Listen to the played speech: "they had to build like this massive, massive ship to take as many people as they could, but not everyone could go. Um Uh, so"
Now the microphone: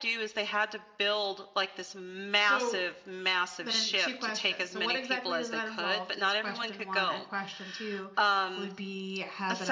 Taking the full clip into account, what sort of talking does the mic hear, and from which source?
both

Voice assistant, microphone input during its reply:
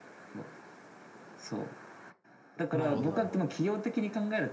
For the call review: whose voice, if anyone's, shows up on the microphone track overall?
both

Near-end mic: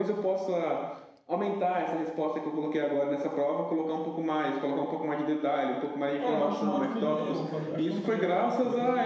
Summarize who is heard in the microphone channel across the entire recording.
both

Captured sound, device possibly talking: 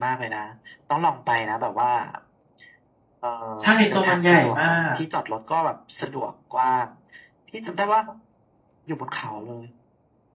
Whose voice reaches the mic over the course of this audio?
both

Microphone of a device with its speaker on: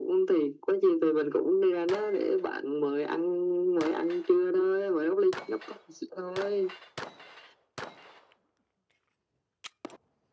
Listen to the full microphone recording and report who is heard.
echo only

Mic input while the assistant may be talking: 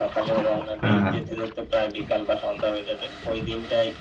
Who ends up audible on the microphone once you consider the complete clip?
both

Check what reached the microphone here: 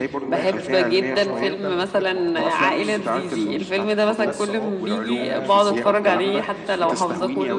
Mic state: both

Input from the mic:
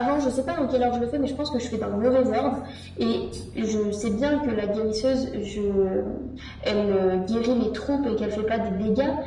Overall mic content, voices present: echo only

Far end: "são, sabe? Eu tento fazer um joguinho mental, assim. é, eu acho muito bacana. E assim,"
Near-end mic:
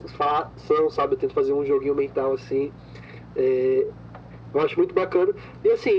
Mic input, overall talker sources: echo only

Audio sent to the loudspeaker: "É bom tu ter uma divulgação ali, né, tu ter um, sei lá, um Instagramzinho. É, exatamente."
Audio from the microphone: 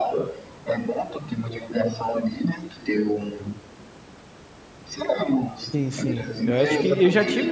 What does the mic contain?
both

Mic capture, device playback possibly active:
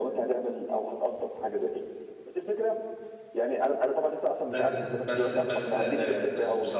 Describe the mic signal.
both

